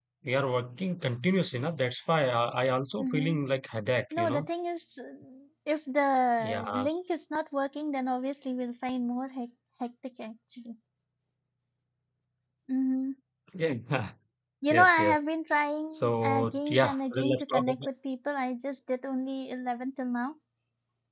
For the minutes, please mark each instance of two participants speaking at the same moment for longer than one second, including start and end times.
15.9-17.9

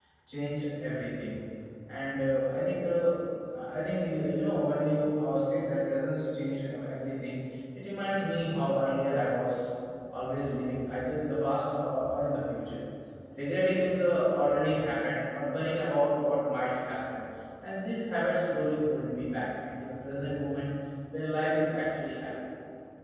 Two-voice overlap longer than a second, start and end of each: none

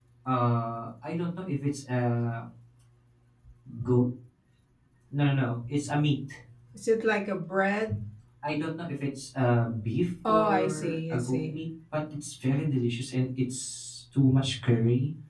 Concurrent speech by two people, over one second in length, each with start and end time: 10.3-11.5

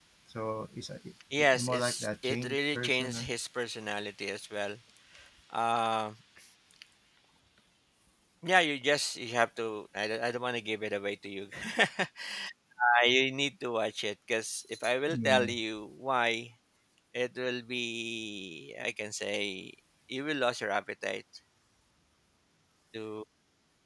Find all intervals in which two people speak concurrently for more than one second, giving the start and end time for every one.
1.6-3.3

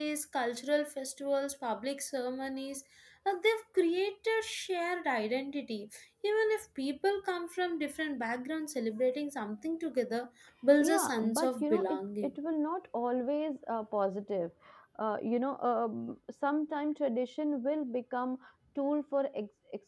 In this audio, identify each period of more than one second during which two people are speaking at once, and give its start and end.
10.8-12.3

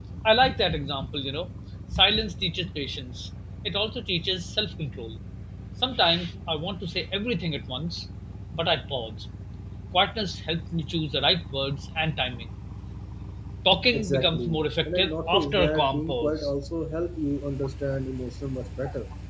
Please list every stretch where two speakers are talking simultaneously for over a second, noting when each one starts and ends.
13.9-16.5

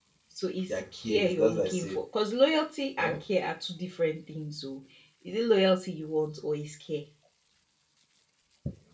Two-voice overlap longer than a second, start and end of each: 0.7-2.0

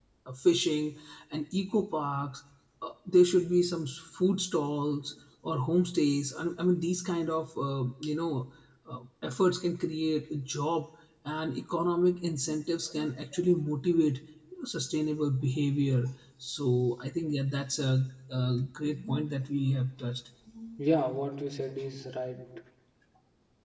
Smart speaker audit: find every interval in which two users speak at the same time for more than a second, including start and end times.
none

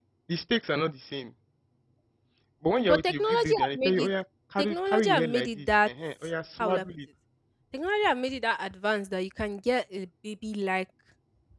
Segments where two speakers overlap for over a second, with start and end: 2.8-4.1, 4.6-5.9

